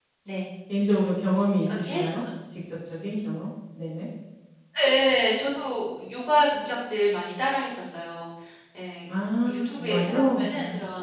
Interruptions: present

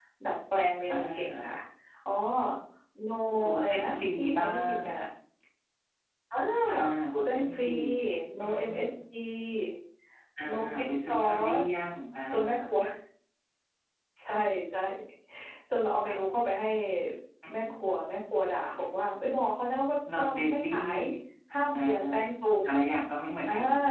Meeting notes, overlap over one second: present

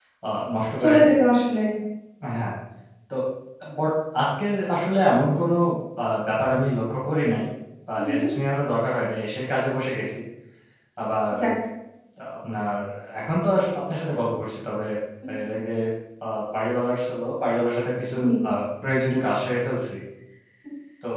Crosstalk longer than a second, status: none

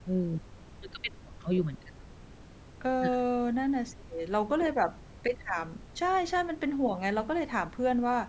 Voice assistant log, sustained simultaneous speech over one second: none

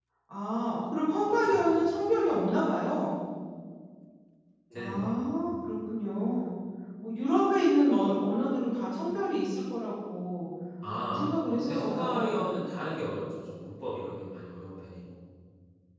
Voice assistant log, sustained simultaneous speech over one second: present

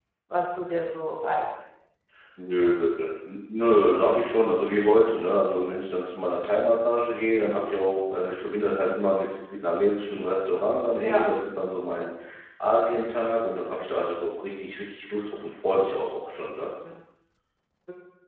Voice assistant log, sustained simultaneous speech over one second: none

